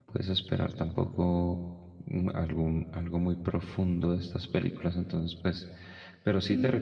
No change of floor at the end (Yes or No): No